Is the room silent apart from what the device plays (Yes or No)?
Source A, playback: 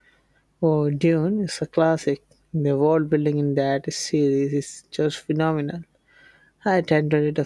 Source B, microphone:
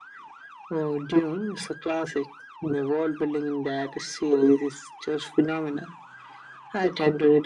Yes